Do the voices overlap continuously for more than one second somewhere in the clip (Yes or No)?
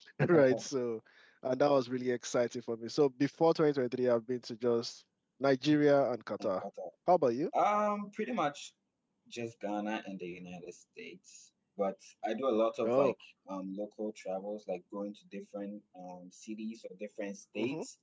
No